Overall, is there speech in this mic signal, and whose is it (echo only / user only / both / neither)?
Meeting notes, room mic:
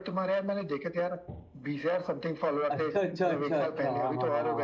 both